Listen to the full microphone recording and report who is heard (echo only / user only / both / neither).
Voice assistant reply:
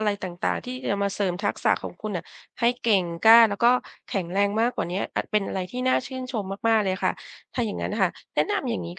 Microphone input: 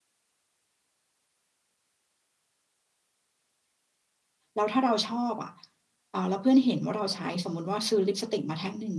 user only